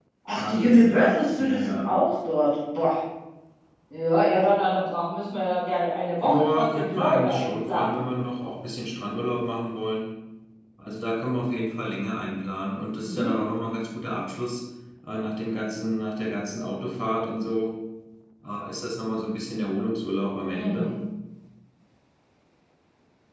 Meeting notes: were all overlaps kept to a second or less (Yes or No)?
No